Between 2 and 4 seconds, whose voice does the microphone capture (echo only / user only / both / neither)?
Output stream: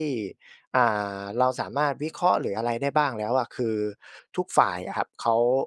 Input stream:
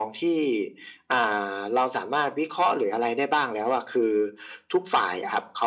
echo only